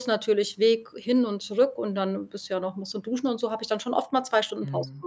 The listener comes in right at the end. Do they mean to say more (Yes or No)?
Yes